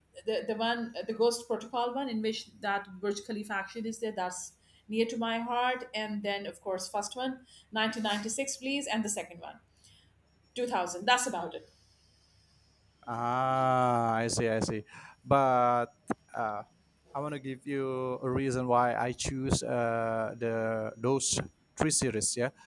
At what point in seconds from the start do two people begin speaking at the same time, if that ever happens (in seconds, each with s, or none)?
none